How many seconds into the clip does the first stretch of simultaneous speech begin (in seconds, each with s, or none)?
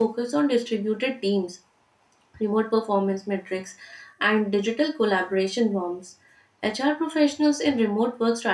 none